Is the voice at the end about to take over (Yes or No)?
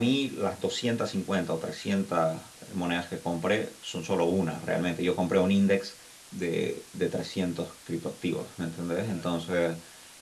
No